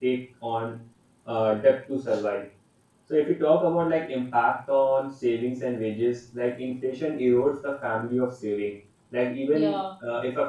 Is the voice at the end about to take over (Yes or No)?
No